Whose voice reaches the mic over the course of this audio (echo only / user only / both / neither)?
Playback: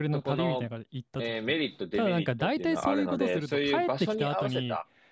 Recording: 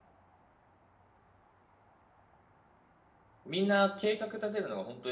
user only